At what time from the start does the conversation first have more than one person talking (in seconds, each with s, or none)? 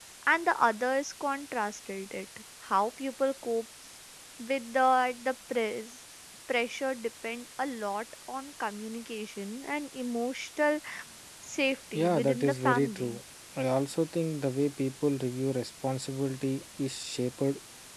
11.9 s